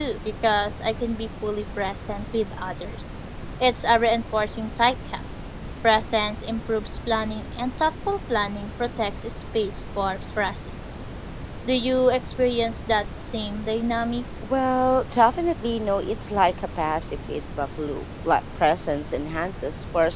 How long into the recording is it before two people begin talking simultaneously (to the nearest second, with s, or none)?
none